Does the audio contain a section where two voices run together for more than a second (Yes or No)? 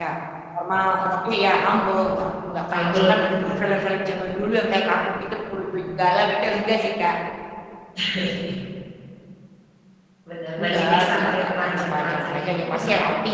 Yes